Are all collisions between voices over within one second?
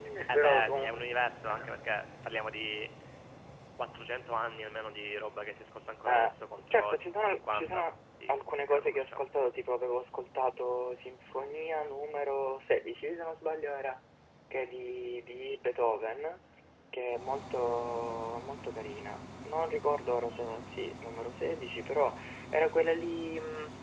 No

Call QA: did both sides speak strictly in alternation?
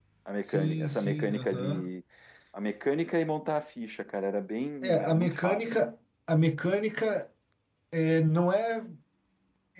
No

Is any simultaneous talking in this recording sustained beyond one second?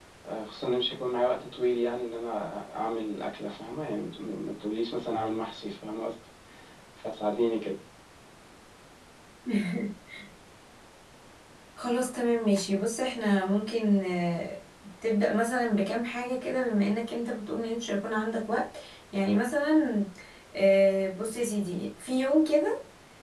No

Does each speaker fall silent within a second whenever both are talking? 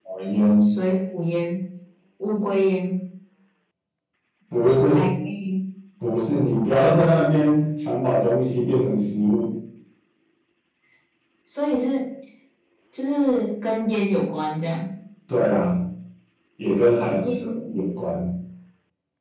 Yes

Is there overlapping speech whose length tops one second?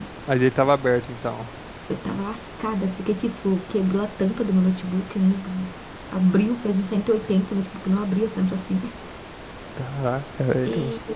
No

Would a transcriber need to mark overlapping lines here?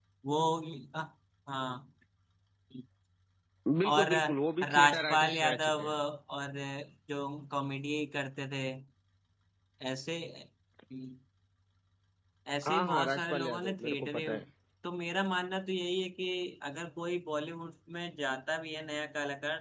Yes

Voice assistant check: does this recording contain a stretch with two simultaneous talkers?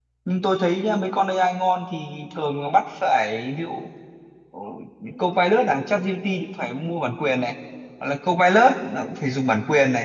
No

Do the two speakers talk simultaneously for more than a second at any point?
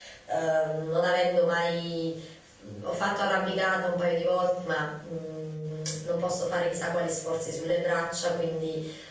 No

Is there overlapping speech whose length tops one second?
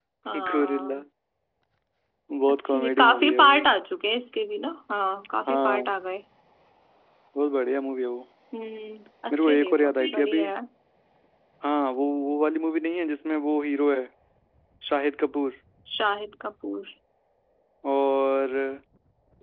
Yes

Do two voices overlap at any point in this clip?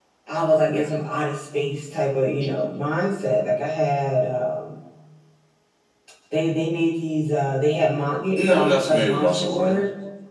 Yes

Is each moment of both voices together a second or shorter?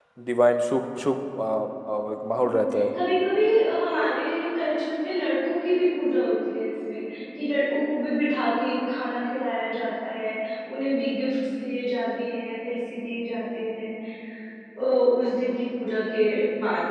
Yes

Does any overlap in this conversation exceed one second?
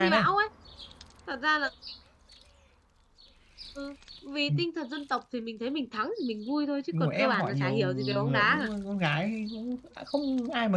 Yes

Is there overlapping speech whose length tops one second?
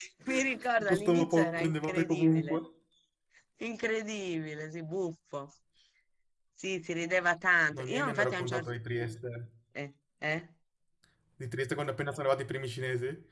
Yes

